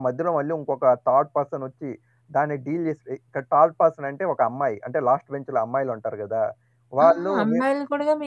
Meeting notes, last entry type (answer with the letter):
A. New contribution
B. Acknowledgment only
A